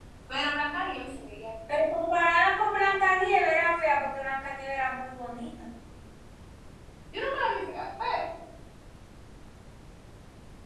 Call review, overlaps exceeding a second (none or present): none